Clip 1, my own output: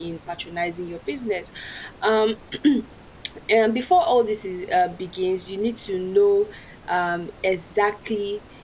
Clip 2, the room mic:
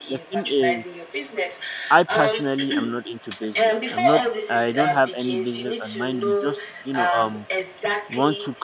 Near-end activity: present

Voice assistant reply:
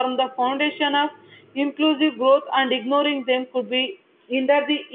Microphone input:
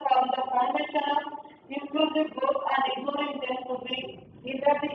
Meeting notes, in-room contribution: none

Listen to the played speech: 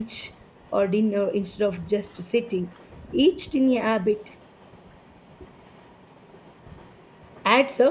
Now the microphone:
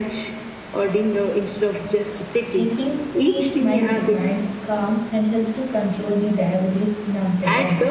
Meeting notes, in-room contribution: present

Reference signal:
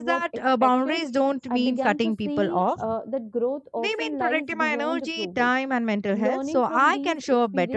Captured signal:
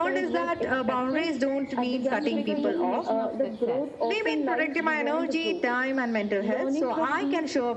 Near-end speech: present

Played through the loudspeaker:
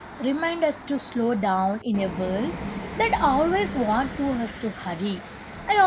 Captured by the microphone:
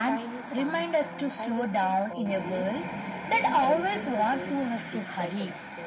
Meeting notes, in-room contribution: present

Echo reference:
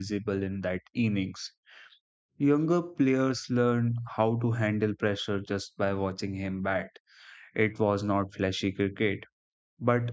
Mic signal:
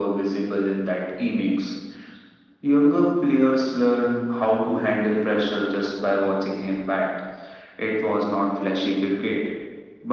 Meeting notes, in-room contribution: none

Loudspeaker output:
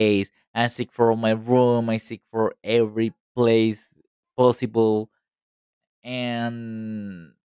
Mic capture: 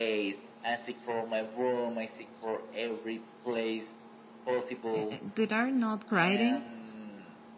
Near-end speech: present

